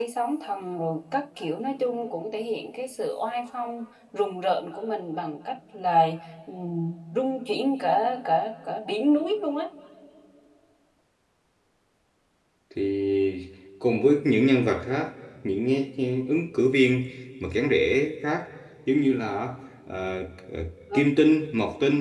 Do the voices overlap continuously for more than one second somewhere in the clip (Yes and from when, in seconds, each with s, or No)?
No